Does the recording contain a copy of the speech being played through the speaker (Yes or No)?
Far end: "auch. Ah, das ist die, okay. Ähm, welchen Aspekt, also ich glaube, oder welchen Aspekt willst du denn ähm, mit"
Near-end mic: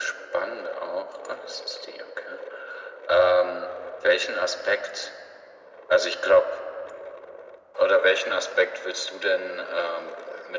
Yes